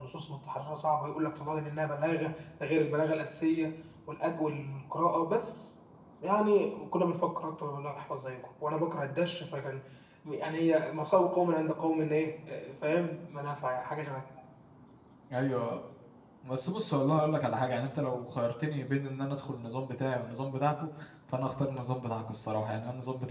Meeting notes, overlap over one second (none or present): none